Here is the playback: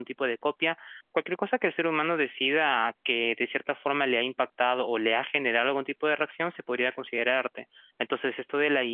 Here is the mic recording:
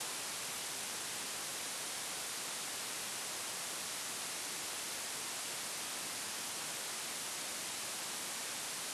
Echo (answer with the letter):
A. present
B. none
B